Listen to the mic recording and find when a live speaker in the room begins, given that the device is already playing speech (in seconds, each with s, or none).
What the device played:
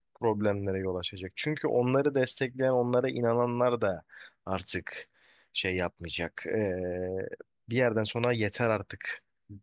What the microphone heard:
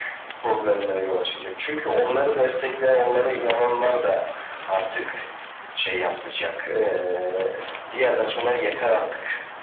none